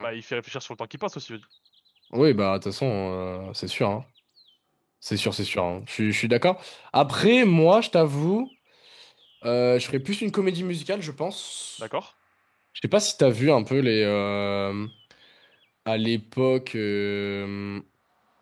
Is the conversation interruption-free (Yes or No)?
Yes